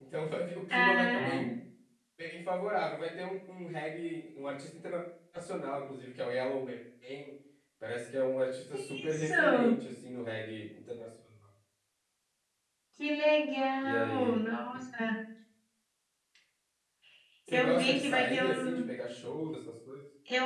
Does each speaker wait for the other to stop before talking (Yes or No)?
No